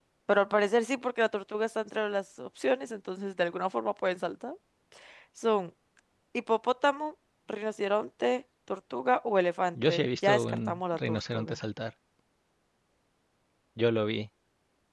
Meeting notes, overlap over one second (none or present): present